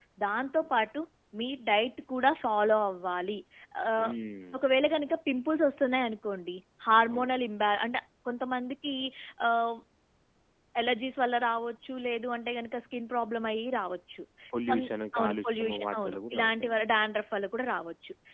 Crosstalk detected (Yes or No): Yes